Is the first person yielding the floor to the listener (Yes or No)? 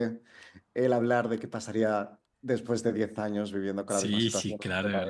Yes